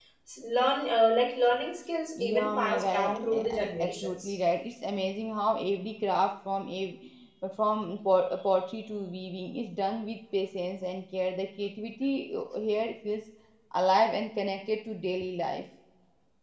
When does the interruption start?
2.2 s

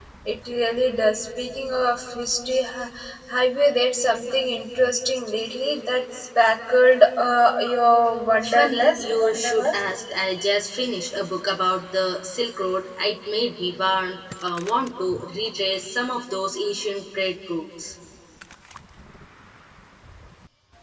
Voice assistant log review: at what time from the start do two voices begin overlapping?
8.4 s

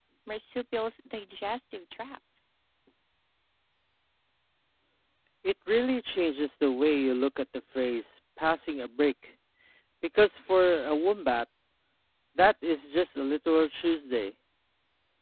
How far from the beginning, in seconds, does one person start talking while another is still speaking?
none

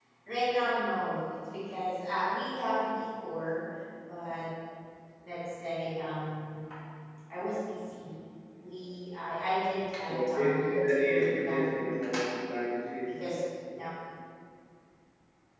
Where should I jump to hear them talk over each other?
10.1 s

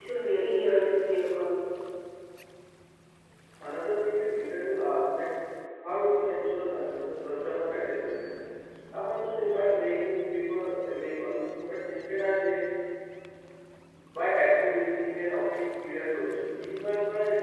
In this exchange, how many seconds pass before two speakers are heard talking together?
none

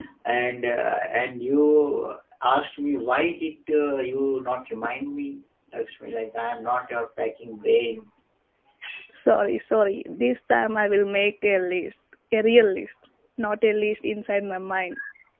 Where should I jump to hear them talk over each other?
none

